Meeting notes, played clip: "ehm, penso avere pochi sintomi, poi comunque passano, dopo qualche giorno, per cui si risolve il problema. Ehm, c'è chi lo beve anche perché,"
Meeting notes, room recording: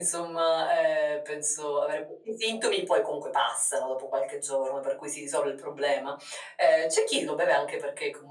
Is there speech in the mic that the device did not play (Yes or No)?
No